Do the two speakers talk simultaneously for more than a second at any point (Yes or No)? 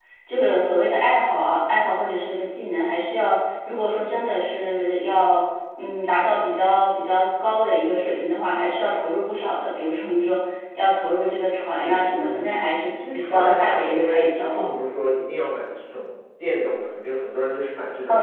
Yes